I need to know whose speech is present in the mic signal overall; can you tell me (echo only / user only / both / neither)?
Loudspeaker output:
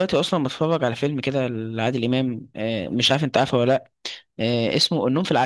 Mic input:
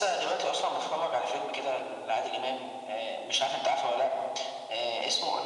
echo only